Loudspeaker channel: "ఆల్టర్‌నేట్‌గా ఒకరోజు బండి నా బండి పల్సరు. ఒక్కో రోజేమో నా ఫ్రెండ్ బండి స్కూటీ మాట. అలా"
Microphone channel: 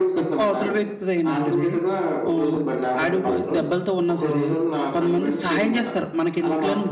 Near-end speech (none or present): present